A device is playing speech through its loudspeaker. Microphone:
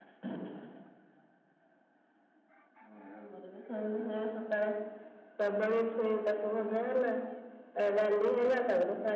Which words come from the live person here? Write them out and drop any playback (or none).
none